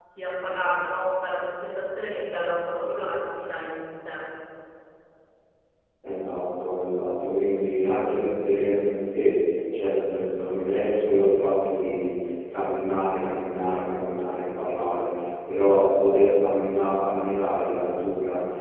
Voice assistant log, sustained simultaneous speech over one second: none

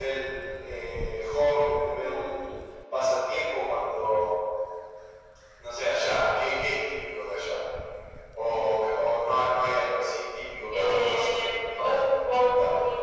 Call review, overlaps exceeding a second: present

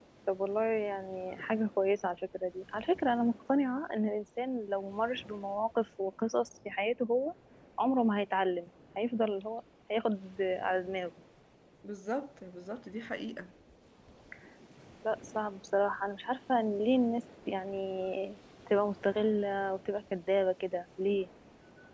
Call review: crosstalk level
none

